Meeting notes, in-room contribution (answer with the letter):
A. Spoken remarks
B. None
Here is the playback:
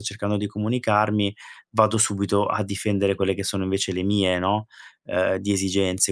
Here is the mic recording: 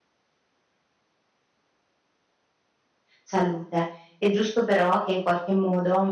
A